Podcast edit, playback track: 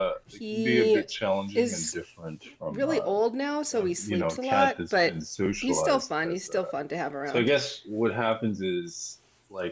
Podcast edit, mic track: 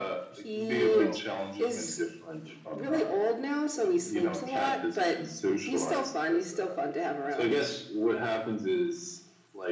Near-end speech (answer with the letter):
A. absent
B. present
B